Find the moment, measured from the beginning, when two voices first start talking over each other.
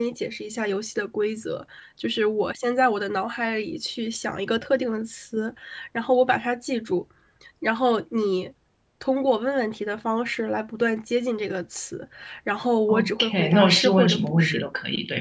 12.9 s

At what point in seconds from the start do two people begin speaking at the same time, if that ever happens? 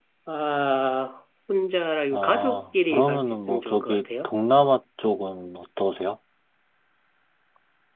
2.1 s

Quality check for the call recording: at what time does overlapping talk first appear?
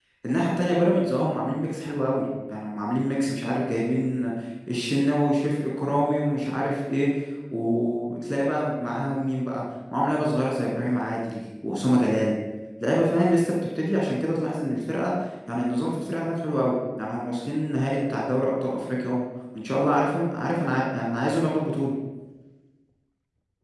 none

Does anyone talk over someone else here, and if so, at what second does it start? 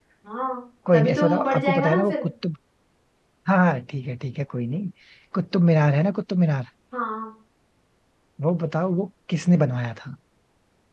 0.9 s

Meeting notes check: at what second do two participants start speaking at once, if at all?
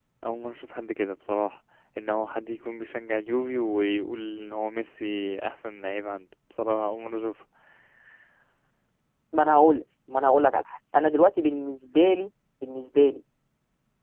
none

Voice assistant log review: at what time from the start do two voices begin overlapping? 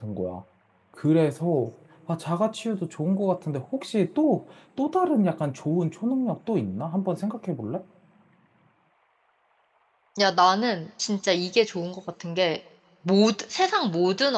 none

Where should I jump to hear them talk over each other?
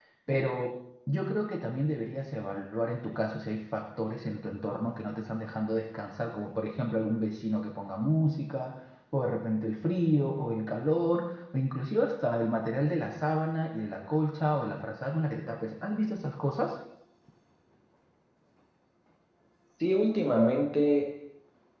none

